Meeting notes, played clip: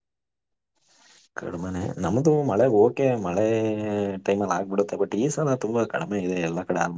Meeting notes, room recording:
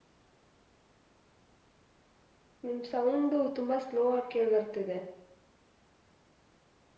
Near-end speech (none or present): present